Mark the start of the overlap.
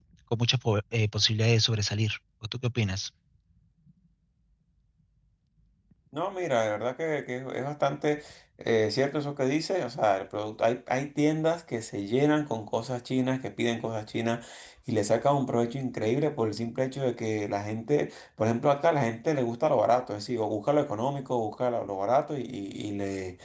none

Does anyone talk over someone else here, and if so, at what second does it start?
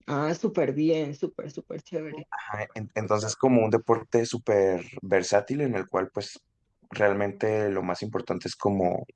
none

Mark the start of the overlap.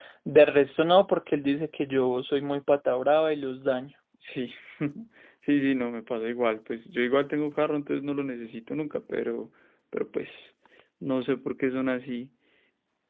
none

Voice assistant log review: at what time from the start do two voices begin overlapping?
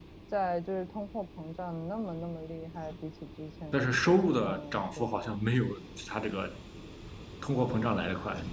4 s

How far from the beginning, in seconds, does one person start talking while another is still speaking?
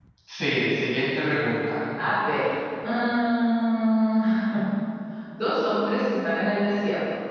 none

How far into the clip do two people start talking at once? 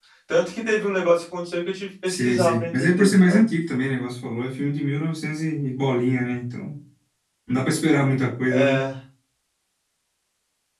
2 s

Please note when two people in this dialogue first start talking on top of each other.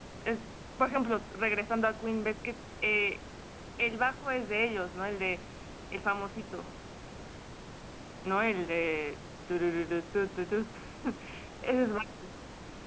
none

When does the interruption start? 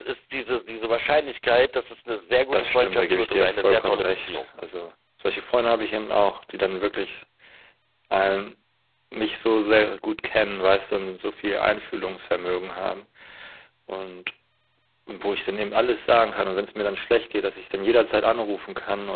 3 s

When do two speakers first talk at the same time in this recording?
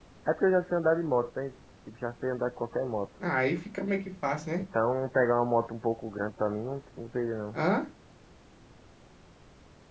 none

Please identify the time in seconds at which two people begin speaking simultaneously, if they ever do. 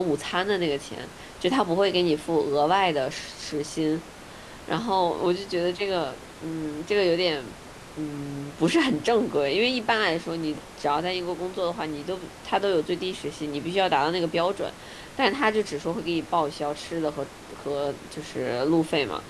none

